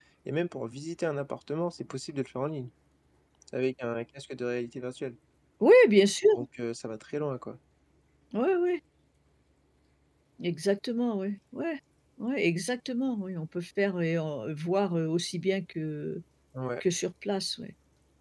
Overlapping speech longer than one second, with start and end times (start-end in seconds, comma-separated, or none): none